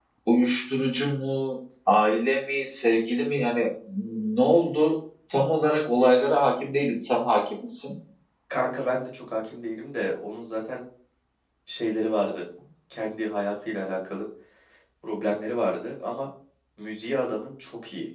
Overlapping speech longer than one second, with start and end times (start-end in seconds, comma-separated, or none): none